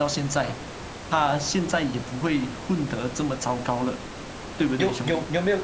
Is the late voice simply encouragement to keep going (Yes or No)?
No